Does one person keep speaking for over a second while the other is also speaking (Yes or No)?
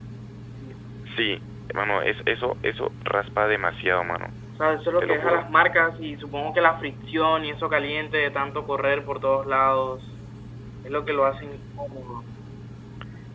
No